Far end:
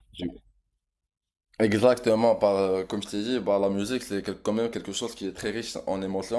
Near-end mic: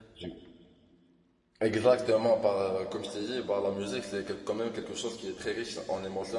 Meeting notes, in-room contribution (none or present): none